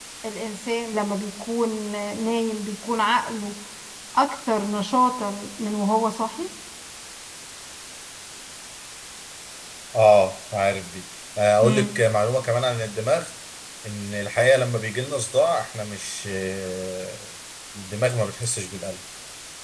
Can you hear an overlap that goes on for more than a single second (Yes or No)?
No